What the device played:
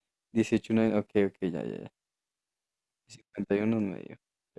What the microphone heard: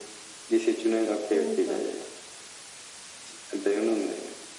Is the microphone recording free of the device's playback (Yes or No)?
No